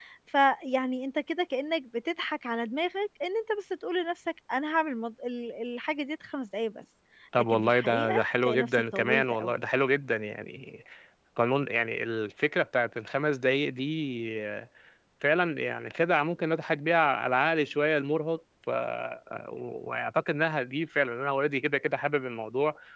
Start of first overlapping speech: 7.4 s

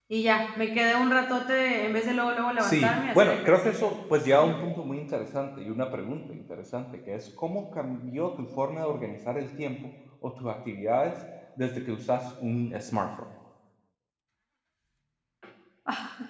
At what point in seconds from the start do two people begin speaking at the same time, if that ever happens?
2.6 s

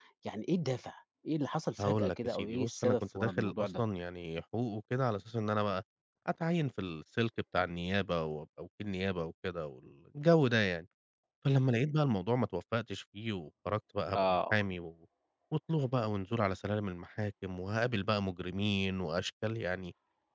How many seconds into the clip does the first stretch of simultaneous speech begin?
1.8 s

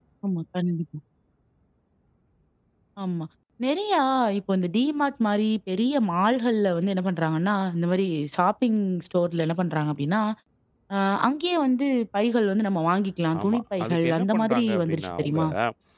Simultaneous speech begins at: 13.3 s

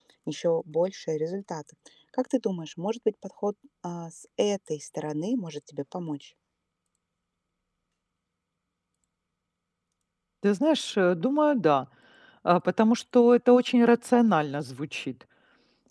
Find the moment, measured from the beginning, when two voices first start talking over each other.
none

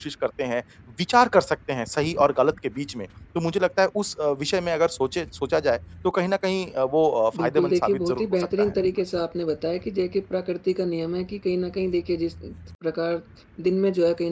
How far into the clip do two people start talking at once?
7.3 s

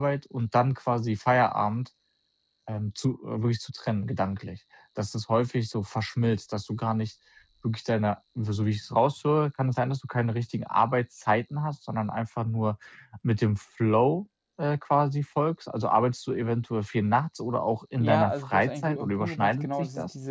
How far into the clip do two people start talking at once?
18.0 s

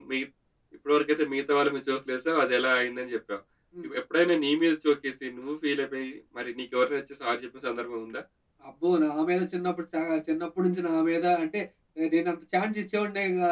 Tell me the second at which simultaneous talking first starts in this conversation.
none

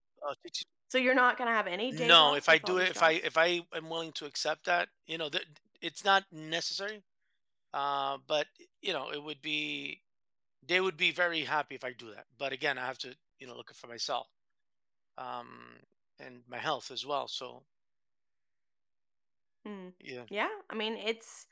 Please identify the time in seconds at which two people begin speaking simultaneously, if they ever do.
1.9 s

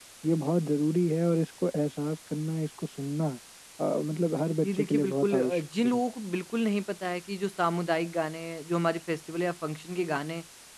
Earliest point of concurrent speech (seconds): 4.6 s

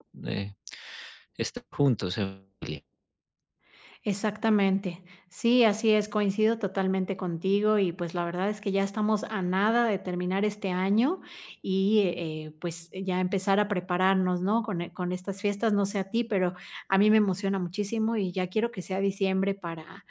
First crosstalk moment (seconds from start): none

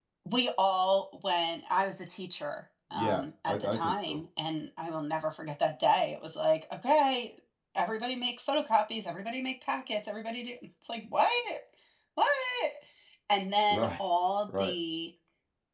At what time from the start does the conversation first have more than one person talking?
2.9 s

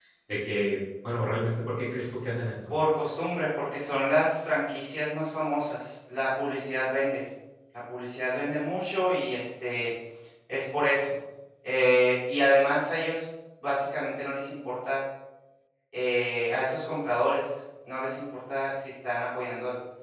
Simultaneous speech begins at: none

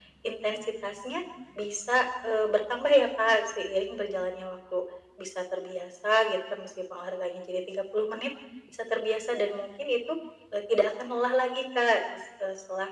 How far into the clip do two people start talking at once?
none

